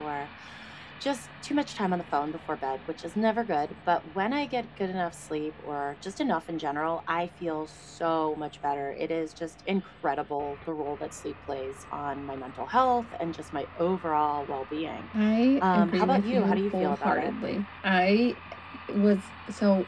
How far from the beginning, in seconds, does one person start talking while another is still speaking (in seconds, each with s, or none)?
15.6 s